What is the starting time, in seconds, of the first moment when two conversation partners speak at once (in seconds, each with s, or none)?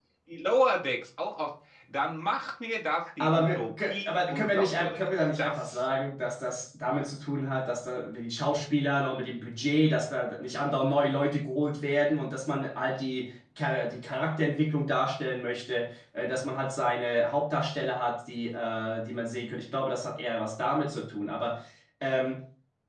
3.2 s